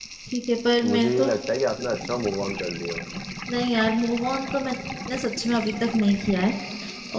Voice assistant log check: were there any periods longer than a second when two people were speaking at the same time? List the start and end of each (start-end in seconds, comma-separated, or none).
none